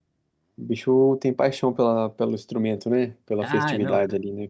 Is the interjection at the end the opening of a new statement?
Yes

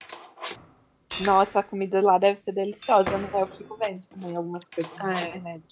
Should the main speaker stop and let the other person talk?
Yes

